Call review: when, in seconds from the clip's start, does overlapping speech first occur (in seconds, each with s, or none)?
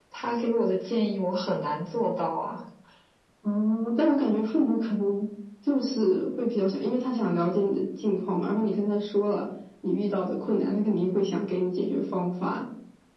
none